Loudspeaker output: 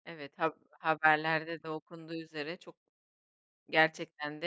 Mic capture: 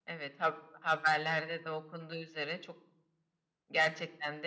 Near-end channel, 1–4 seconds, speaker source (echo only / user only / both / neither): echo only